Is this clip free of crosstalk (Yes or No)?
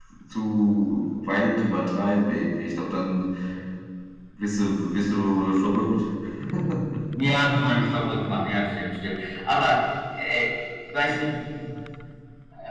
Yes